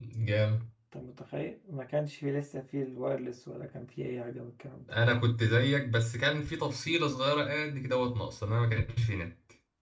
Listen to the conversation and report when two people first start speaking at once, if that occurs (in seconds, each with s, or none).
none